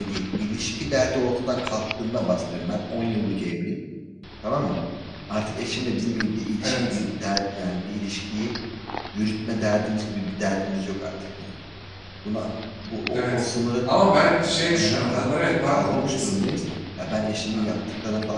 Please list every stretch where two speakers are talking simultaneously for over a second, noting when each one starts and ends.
14.7-16.3

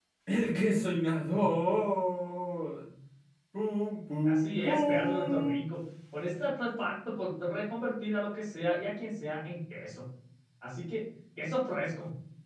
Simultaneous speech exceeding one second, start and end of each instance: 4.2-5.7

